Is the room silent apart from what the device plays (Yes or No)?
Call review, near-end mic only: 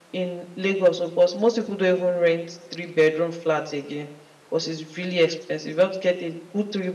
Yes